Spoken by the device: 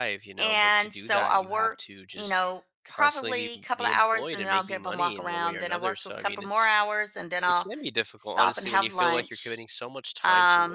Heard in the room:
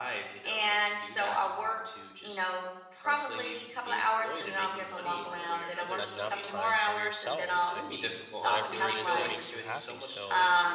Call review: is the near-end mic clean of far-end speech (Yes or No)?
No